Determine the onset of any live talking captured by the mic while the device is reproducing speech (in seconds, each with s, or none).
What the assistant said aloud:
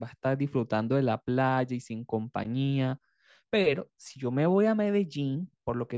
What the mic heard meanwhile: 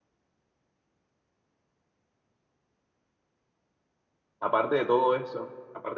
4.4 s